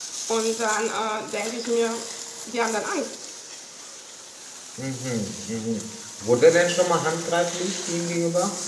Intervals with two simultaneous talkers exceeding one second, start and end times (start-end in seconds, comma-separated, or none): none